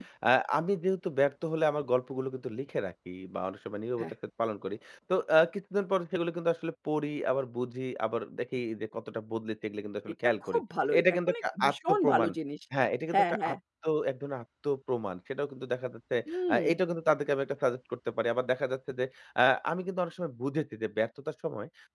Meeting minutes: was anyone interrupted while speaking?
Yes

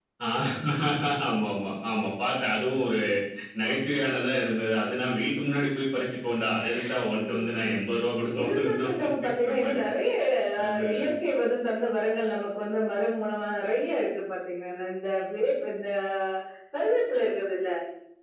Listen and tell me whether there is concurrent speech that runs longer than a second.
Yes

